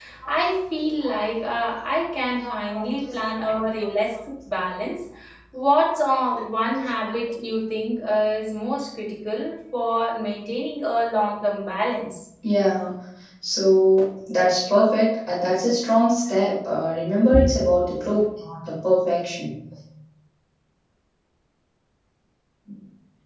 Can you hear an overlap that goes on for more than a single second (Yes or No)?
No